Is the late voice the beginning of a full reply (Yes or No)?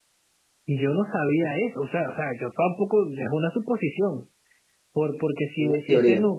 No